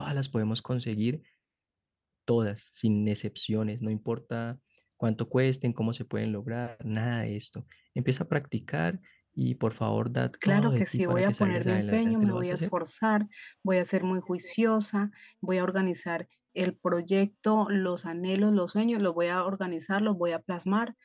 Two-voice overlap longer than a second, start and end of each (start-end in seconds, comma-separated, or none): 10.5-12.6